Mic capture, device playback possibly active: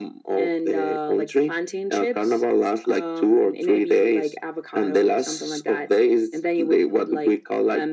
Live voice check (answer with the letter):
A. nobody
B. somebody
A